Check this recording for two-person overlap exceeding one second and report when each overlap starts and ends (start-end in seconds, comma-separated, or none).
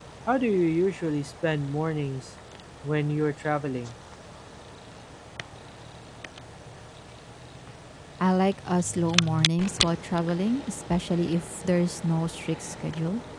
none